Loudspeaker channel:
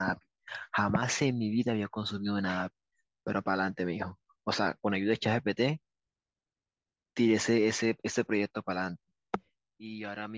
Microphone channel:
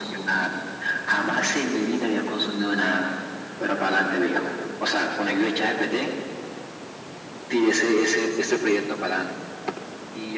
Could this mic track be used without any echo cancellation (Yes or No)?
No